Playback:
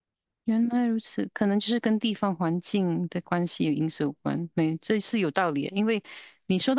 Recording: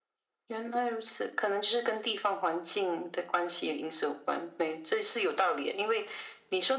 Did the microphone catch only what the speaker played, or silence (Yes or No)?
Yes